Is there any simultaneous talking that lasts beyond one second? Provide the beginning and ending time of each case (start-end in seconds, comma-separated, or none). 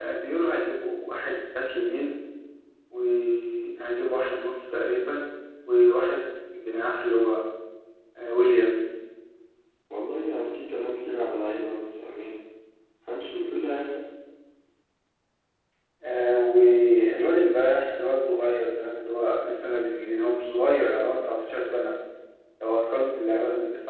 none